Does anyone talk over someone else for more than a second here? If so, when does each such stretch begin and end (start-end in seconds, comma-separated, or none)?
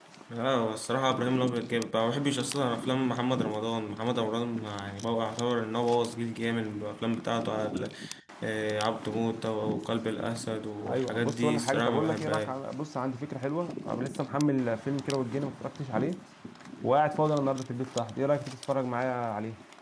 10.9-12.5